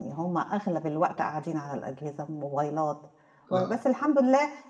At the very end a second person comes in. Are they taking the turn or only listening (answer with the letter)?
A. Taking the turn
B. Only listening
B